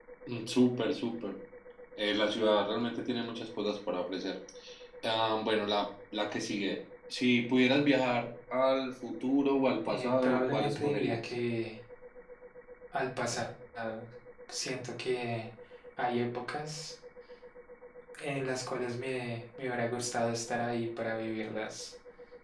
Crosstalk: present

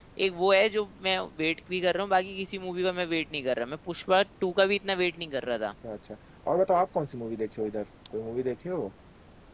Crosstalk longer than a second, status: none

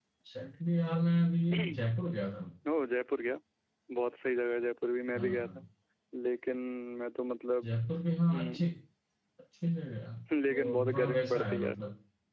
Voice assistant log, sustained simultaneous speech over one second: present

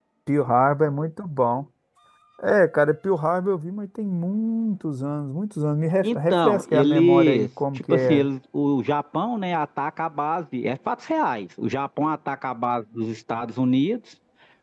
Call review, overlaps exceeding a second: present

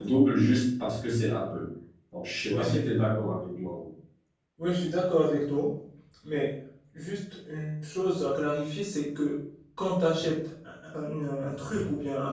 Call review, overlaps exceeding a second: none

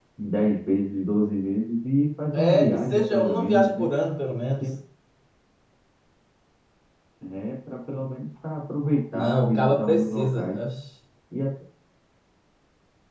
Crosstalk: present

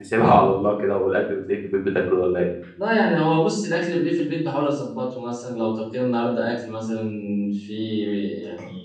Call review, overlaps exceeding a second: none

